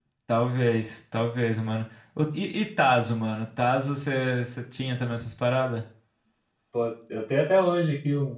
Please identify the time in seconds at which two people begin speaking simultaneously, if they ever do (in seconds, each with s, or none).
none